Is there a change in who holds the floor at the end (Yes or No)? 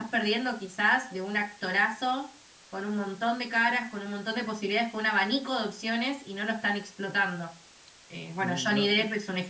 No